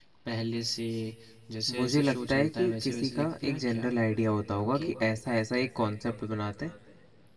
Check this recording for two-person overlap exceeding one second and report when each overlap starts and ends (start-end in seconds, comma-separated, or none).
1.8-3.9